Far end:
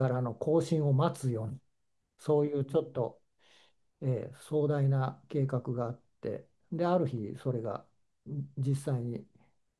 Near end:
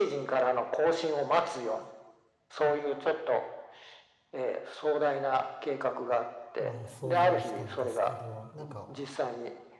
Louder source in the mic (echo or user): echo